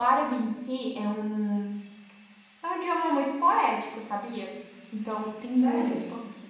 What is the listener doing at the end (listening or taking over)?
listening